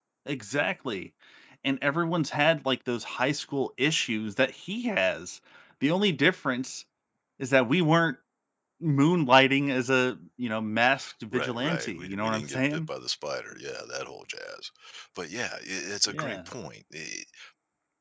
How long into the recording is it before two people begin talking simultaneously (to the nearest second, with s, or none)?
11 s